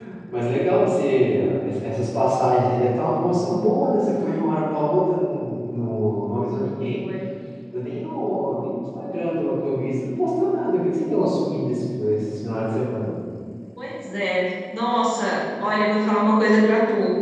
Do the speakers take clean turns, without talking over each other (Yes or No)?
Yes